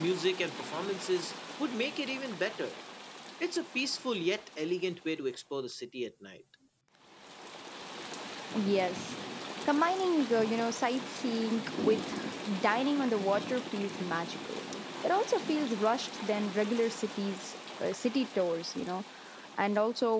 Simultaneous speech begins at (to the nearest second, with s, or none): none